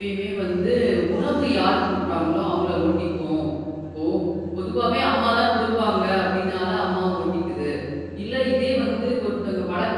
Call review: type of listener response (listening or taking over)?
listening